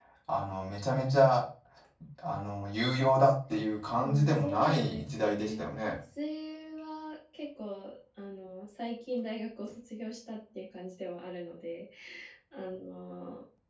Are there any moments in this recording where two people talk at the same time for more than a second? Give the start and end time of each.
4.0-5.7

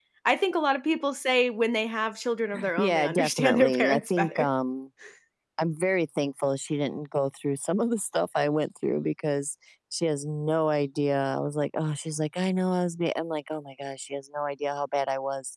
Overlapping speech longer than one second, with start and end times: 2.8-4.5

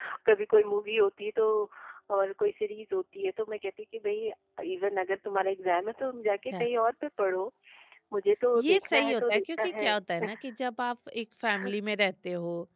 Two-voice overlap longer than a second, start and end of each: 8.6-9.9

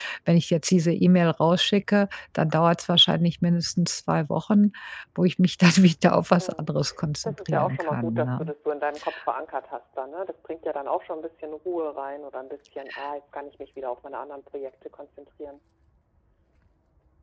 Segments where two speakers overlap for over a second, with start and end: 7.2-8.5

